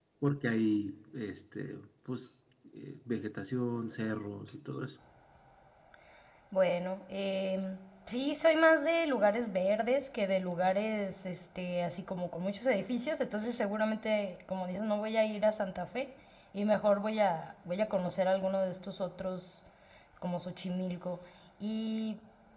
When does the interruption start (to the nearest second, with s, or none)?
none